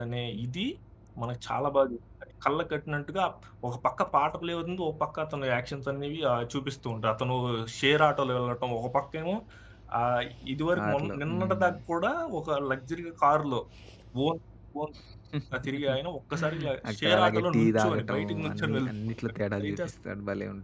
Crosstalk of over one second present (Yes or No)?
Yes